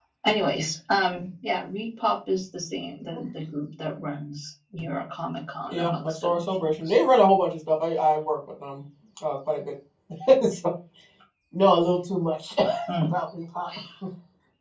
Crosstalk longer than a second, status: present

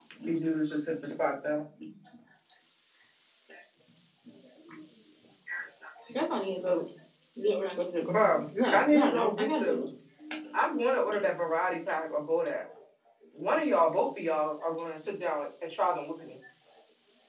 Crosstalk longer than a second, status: present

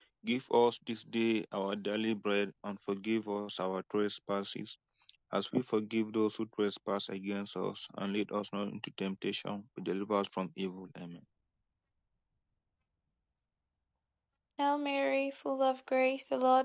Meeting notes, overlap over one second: none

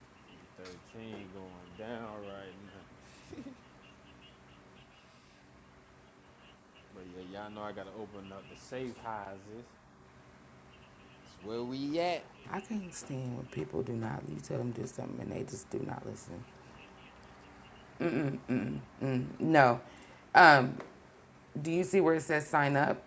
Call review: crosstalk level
none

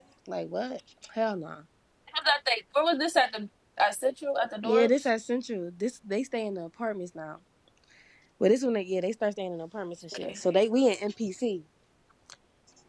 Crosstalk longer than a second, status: none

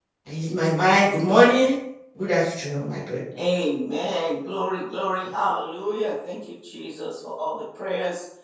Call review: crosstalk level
none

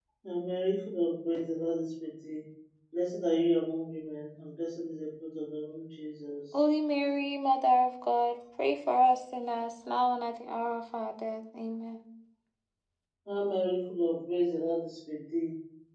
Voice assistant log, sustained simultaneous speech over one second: none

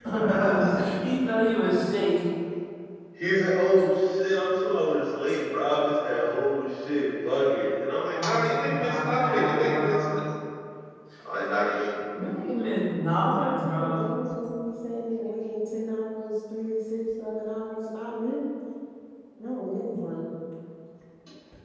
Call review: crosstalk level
present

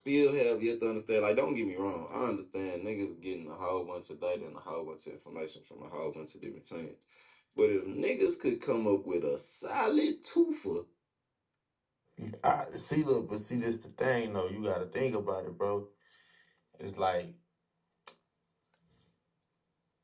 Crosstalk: none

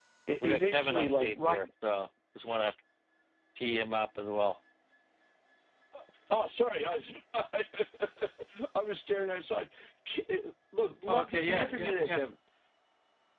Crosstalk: present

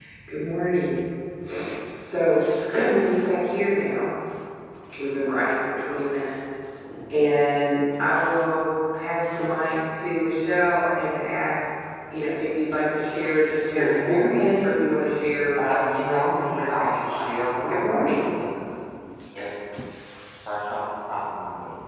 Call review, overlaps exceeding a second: present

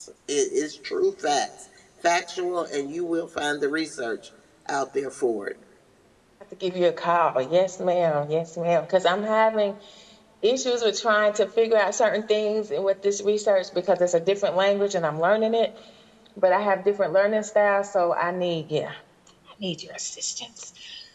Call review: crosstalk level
none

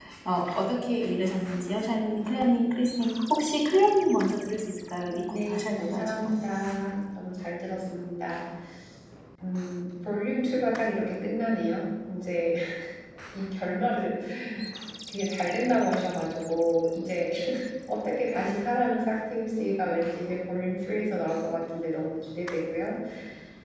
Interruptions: present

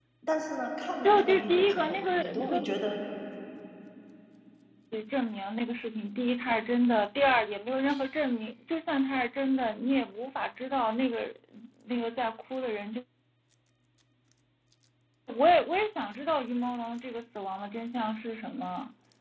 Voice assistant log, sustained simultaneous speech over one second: present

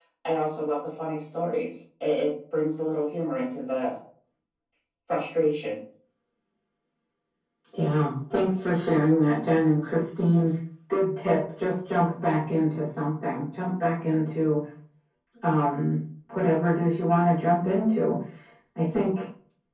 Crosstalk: none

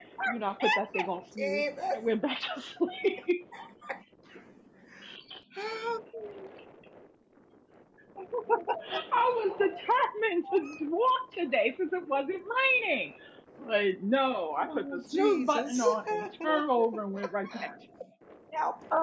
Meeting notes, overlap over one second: present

